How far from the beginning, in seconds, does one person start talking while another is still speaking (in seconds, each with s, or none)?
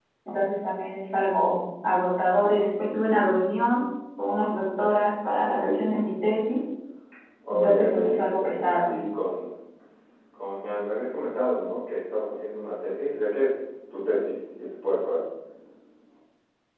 7.5 s